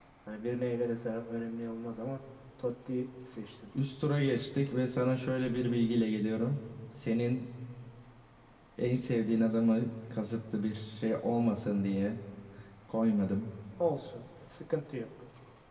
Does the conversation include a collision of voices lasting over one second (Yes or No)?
No